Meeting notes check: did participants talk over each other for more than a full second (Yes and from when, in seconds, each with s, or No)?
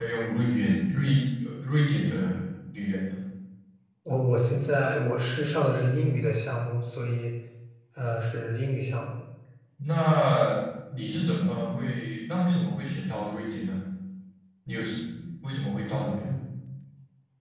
No